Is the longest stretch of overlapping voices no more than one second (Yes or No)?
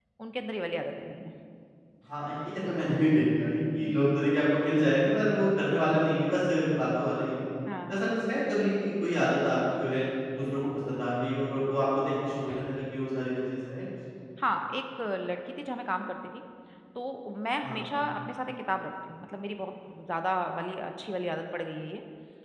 Yes